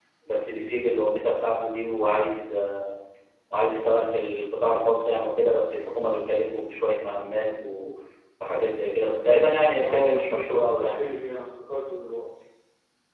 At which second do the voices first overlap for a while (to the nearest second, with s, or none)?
10 s